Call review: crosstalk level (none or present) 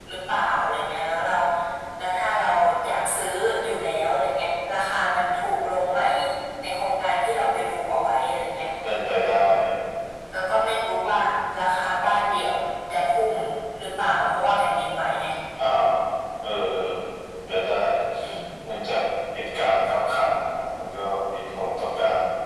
none